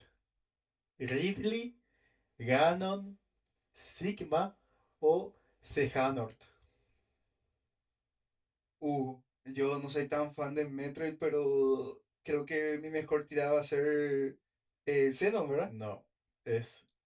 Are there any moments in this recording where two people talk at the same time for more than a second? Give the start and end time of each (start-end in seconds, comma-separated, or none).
none